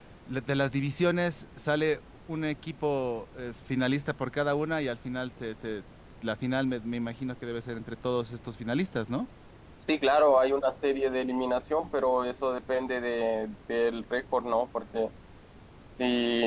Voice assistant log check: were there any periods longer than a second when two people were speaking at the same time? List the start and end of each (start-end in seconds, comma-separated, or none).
none